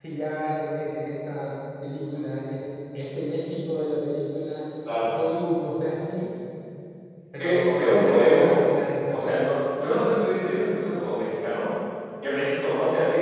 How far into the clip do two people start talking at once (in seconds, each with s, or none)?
7.4 s